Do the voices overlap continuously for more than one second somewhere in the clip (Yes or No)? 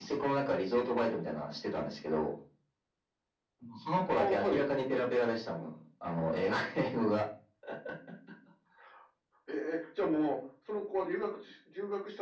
No